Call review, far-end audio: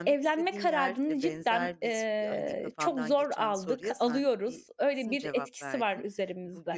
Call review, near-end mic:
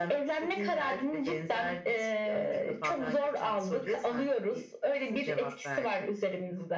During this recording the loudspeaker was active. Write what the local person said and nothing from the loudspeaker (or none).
none